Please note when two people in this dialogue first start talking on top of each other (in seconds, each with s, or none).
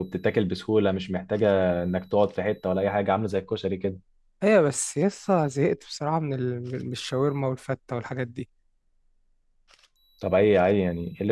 none